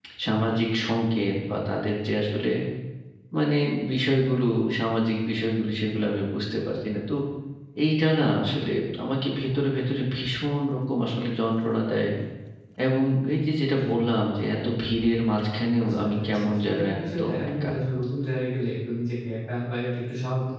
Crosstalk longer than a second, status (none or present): present